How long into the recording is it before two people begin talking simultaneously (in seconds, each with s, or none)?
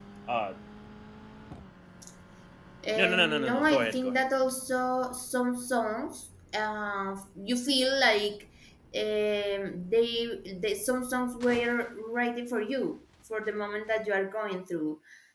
3.0 s